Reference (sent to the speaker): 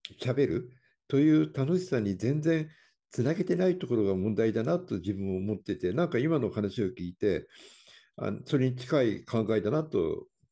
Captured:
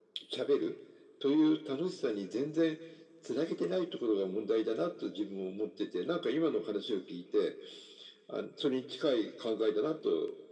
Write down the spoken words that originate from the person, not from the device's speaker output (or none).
none